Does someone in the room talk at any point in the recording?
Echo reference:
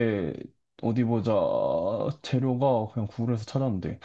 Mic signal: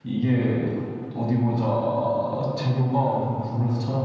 No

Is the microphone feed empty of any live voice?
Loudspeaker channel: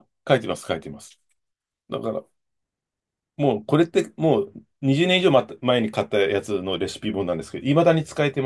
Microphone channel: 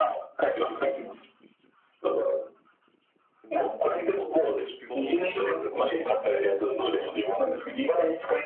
No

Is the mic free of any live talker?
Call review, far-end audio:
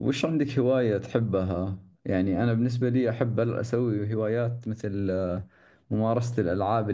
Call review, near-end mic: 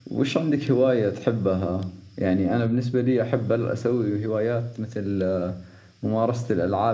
Yes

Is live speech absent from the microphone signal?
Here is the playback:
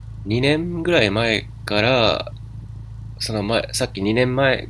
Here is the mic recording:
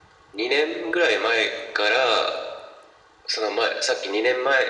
Yes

